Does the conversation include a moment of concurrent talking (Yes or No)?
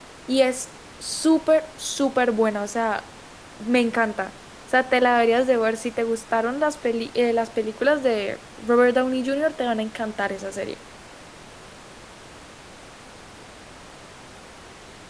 No